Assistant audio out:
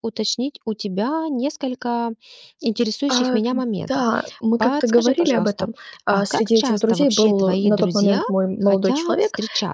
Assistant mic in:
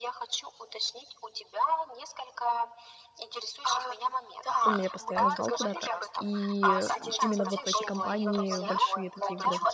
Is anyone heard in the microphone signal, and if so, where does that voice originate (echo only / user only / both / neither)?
both